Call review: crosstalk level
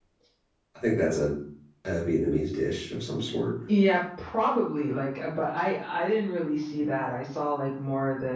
none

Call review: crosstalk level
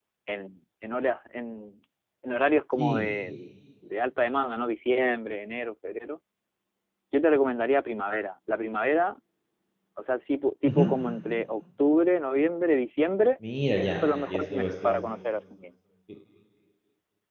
present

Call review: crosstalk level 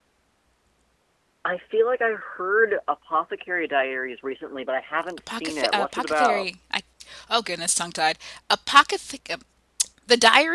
present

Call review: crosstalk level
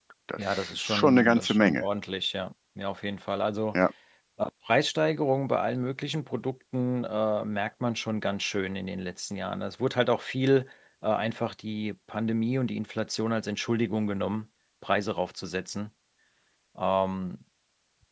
present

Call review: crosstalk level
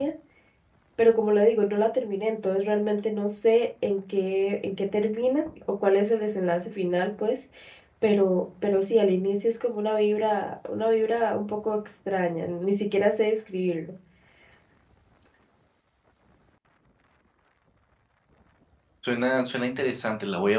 none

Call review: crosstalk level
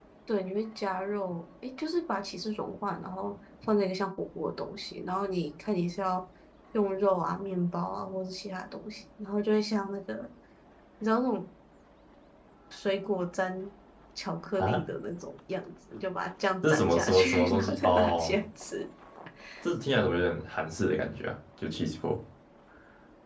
present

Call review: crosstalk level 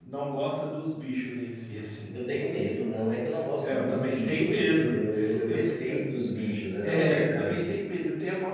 present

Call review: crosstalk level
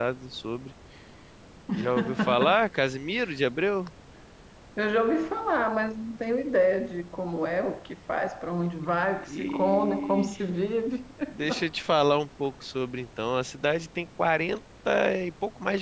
present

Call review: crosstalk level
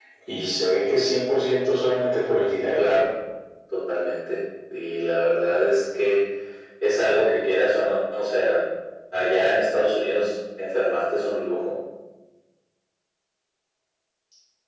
none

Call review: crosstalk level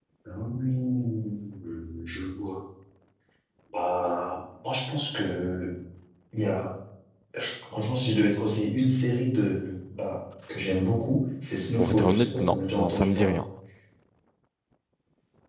present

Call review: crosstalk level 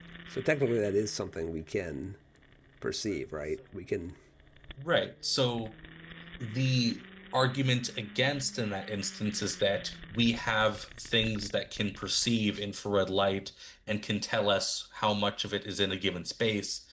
none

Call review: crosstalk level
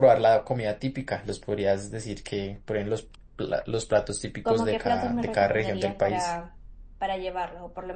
present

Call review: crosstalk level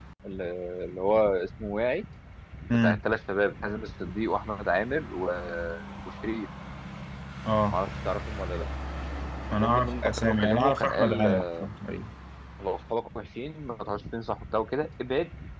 present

